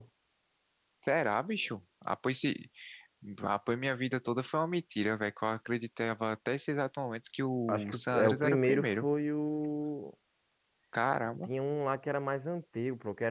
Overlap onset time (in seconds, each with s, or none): 7.7 s